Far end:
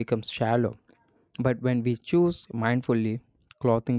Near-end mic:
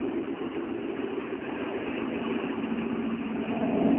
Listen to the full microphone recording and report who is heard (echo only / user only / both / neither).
neither